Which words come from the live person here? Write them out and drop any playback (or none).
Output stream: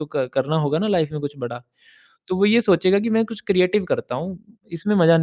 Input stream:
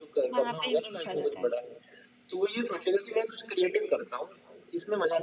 वहां पे इंटरेस्ट आ जाता है